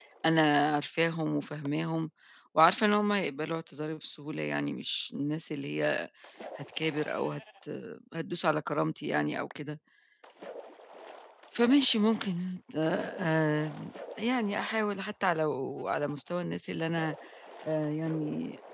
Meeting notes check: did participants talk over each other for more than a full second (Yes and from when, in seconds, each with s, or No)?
No